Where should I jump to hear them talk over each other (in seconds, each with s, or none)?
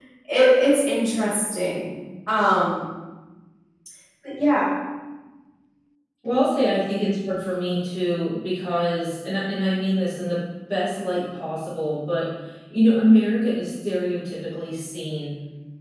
none